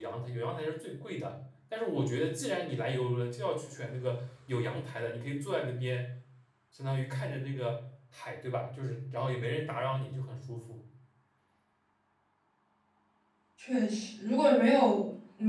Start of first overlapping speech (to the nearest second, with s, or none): none